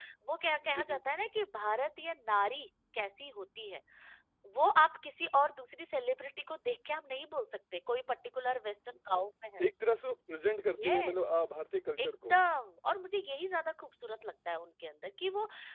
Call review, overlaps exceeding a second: none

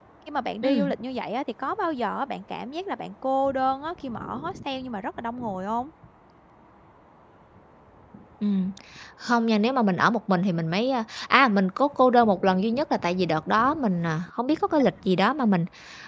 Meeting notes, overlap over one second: none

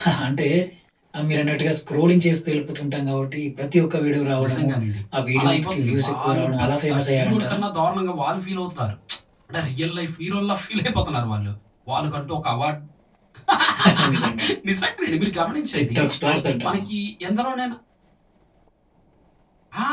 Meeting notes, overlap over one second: present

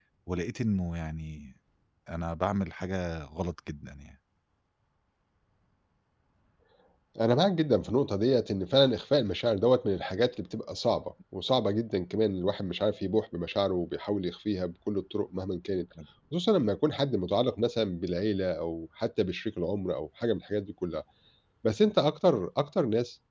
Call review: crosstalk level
none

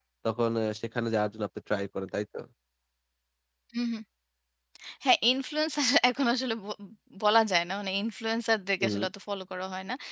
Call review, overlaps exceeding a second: none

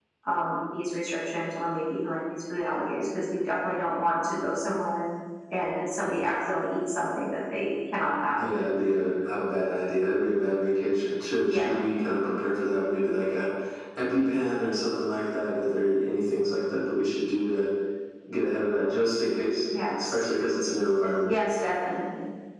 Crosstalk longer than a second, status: none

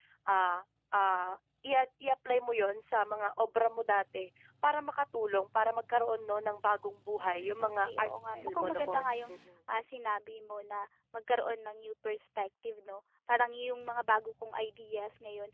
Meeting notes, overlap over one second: present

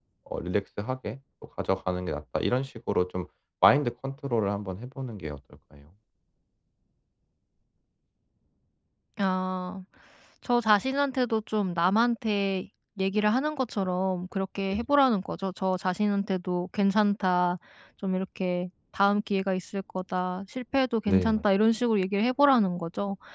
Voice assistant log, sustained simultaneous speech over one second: none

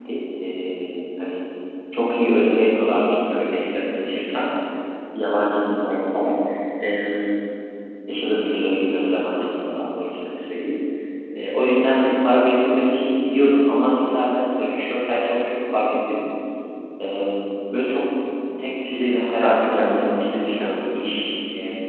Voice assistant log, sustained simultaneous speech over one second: present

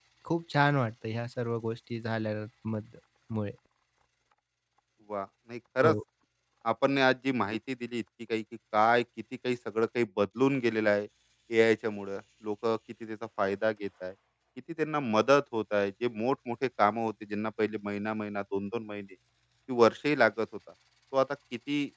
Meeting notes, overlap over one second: none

